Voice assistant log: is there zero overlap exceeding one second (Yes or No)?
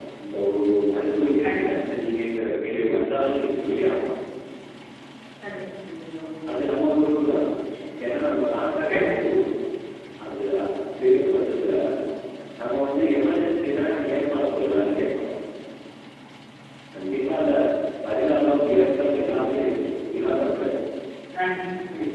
Yes